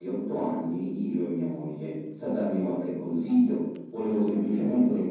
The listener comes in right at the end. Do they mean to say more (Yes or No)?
No